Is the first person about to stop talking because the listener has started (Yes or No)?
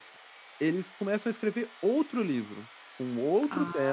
No